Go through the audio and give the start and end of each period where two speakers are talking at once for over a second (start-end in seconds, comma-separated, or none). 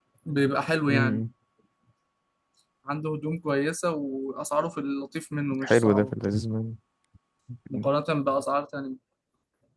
none